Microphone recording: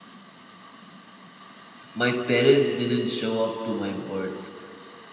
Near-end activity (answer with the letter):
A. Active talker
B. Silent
A